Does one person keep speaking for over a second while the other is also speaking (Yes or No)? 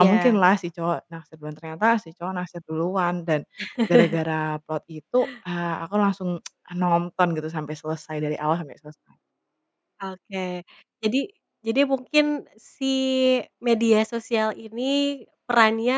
No